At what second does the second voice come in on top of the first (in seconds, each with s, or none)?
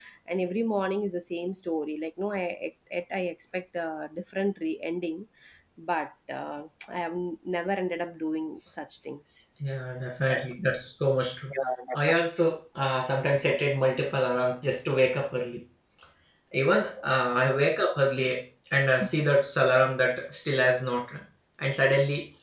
none